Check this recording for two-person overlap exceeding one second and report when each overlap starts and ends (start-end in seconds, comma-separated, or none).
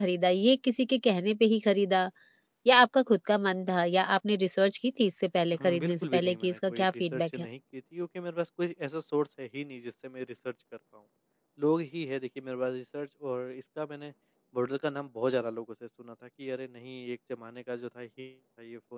5.6-7.5